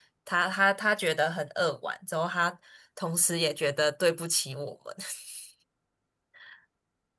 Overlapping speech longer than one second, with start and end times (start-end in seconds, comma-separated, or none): none